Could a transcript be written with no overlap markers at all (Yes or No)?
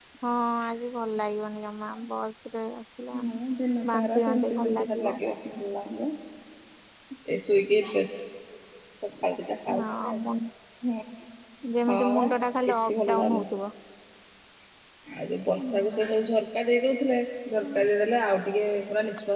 No